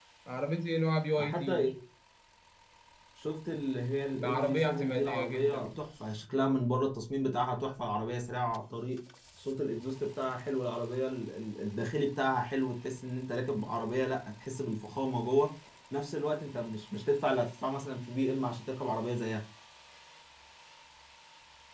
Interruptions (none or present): present